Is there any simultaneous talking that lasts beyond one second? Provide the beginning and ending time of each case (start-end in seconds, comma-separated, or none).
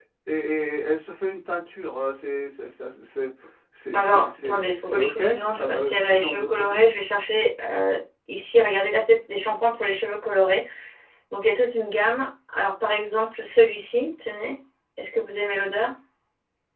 3.9-6.8